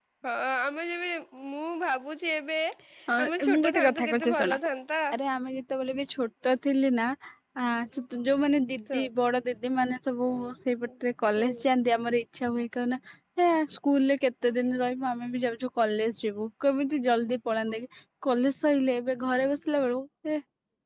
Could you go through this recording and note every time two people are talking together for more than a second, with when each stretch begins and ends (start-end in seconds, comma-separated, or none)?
3.2-4.6